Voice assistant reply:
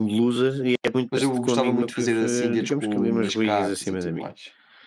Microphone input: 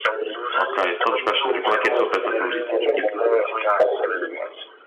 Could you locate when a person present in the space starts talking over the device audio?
0.6 s

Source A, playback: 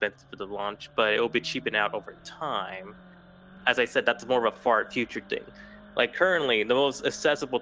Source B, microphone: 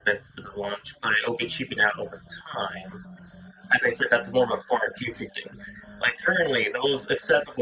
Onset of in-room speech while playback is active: none

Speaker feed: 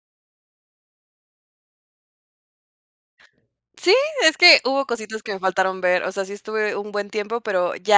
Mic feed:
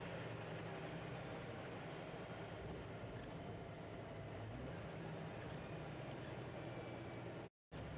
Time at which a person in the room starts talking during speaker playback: none

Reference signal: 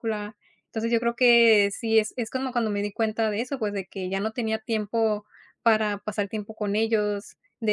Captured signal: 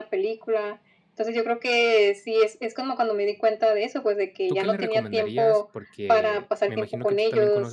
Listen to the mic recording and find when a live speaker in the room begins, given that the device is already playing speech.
4.5 s

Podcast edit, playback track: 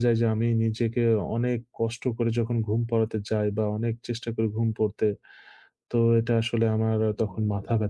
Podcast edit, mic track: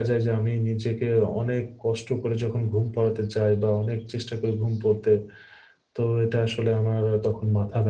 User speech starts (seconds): none

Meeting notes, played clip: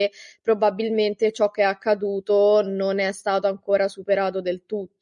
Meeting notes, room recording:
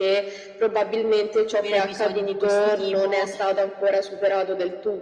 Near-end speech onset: 1.6 s

